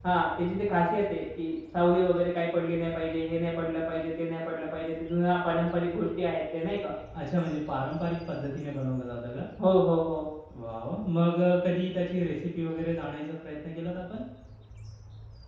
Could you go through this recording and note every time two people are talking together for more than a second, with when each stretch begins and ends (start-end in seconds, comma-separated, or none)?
none